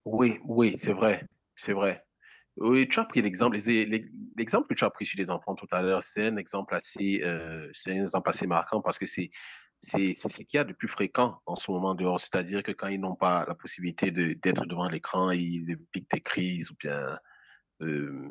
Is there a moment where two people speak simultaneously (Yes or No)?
No